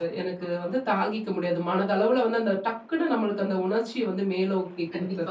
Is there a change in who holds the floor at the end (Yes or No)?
Yes